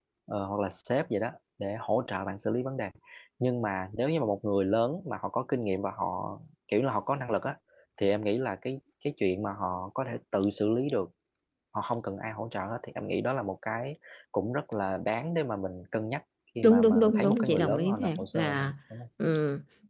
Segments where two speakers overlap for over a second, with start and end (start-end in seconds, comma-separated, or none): 16.6-18.7